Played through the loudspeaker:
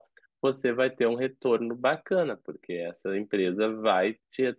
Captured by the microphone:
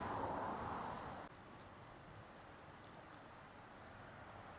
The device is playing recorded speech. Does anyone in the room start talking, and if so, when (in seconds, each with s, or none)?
none